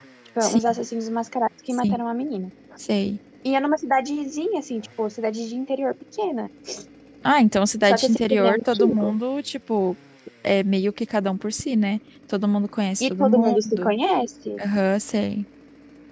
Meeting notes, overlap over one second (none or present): present